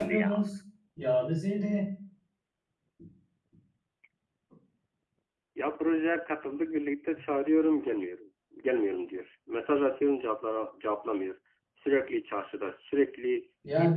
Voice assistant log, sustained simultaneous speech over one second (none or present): none